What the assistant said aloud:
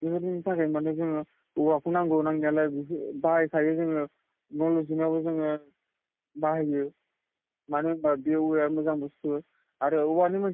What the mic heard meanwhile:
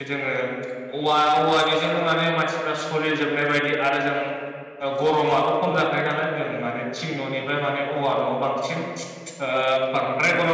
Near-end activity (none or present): present